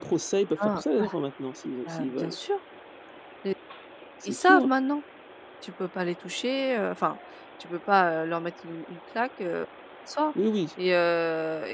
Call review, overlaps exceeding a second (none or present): none